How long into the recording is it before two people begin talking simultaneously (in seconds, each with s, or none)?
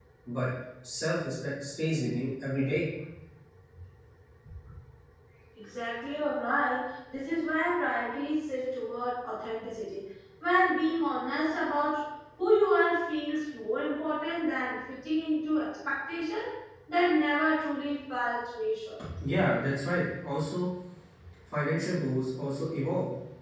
none